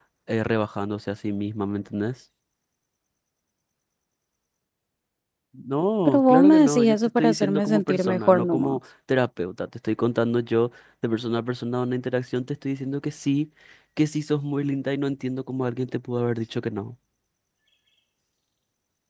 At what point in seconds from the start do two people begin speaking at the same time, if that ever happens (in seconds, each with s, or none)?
6.1 s